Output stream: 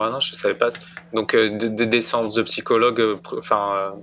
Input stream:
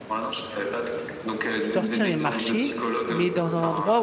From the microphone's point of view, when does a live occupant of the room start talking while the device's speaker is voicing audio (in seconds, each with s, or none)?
1.6 s